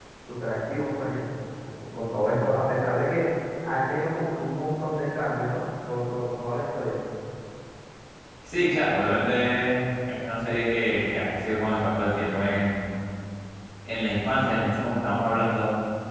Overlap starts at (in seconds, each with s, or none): none